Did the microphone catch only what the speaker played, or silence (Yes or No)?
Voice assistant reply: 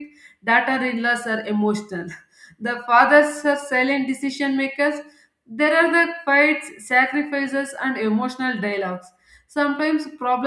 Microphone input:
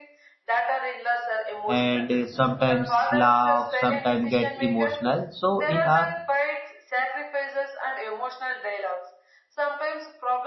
No